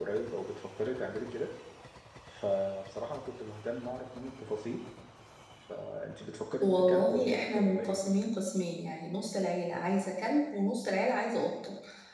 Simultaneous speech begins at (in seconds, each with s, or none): 6.6 s